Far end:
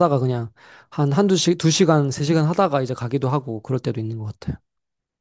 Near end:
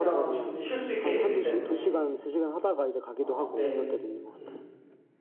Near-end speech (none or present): present